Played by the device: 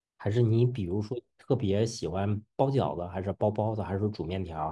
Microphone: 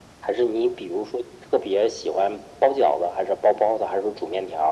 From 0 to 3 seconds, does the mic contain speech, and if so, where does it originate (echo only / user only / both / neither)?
echo only